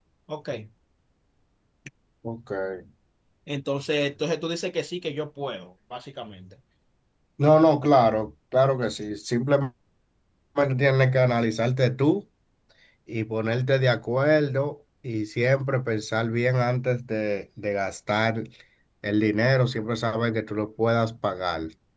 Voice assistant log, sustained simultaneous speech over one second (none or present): none